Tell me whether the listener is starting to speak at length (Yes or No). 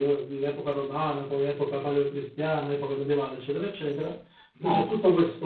No